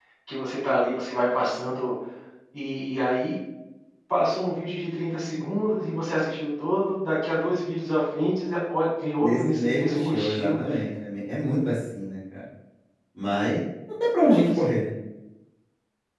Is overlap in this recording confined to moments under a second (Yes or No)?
No